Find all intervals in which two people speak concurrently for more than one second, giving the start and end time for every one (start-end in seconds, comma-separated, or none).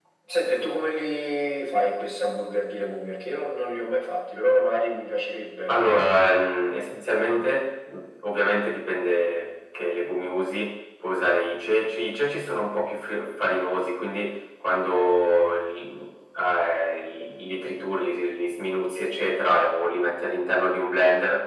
none